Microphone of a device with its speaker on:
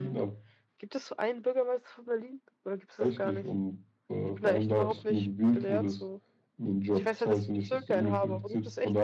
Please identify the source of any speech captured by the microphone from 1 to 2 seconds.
user only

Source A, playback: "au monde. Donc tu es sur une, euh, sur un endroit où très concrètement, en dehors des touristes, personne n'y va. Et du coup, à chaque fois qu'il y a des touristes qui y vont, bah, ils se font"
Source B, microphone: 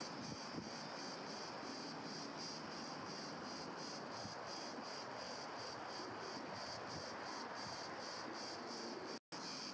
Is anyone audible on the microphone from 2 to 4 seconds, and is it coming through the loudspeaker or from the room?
neither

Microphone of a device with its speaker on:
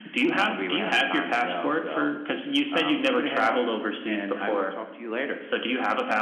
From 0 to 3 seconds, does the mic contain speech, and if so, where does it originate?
echo only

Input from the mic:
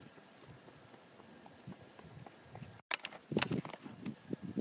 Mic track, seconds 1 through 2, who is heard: neither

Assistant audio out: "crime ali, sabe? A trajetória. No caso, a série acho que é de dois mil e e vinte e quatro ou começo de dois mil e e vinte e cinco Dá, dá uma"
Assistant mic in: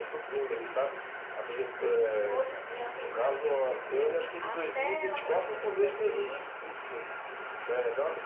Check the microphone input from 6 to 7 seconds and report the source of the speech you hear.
both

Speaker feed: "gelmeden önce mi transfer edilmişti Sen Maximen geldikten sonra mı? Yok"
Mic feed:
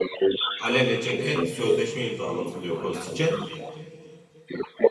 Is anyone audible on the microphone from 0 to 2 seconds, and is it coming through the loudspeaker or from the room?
both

